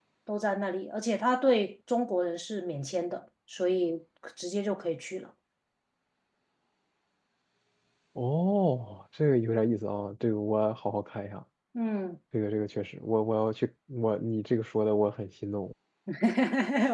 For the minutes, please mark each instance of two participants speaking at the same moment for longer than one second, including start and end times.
none

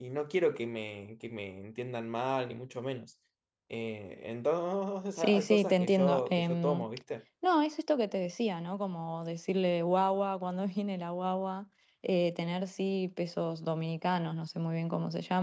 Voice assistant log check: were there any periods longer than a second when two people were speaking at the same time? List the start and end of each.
5.2-6.8

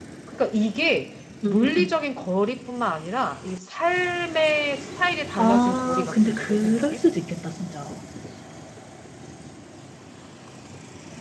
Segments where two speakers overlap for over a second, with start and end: 5.4-6.8

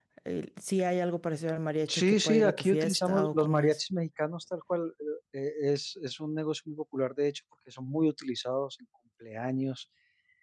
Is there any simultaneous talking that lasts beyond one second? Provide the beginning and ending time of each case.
1.9-3.8

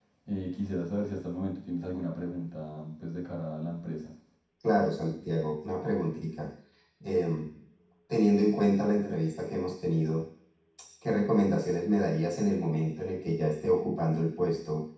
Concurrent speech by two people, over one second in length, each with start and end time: none

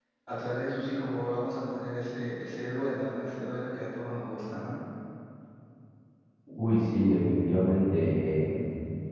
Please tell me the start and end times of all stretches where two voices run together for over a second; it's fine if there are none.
none

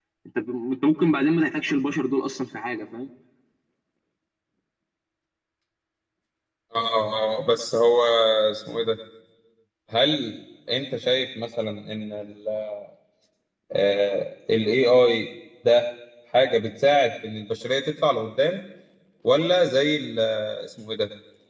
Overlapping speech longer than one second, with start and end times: none

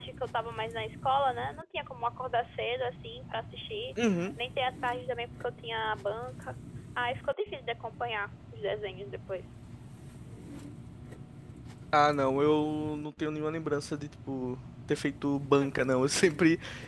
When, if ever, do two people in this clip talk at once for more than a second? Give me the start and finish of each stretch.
none

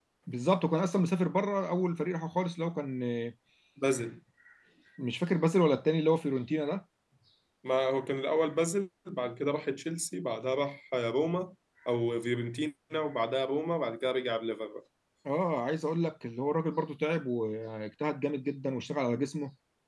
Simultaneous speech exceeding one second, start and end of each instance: none

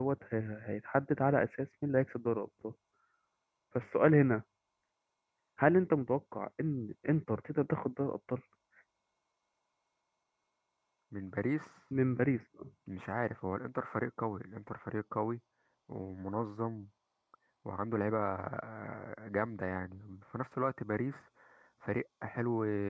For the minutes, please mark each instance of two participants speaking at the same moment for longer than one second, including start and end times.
none

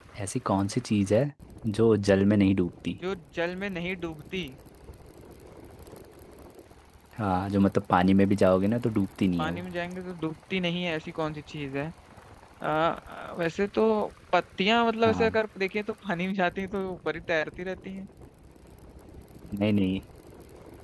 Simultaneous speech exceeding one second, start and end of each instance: none

